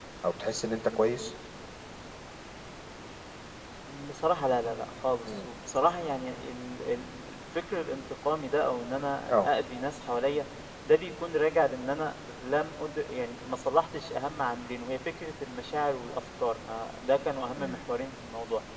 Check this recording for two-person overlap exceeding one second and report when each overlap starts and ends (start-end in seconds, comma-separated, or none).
none